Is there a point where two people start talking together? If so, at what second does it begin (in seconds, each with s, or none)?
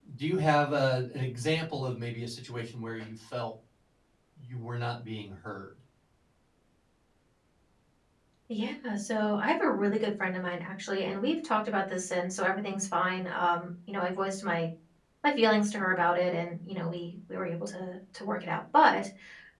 none